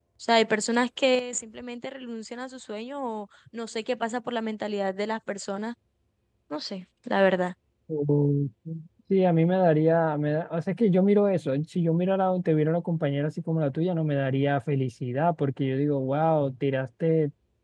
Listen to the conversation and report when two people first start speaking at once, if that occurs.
none

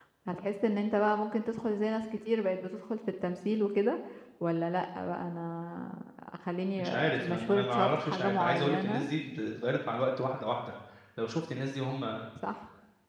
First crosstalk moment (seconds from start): 6.8 s

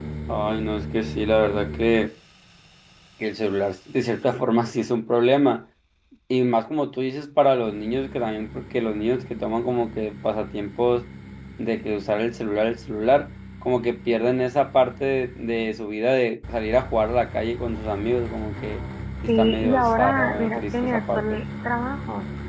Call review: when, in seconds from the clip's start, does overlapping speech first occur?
19.2 s

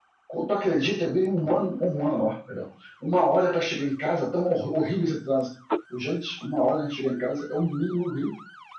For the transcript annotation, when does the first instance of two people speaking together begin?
none

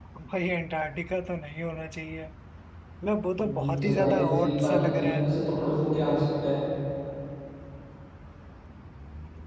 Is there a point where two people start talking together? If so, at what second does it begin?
3.4 s

